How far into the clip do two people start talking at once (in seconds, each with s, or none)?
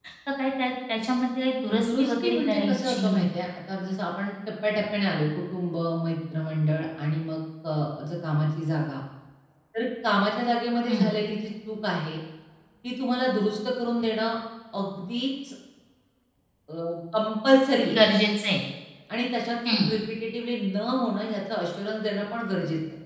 1.8 s